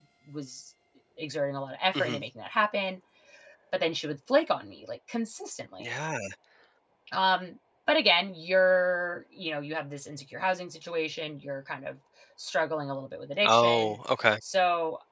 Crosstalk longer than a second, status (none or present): none